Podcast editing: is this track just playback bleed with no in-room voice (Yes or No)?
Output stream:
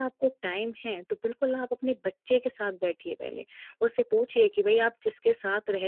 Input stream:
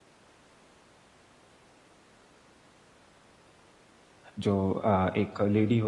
No